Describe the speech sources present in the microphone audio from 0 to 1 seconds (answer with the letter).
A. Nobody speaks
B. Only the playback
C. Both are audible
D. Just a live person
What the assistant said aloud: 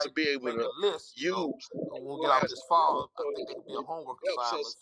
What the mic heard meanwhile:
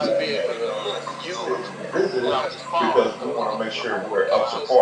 C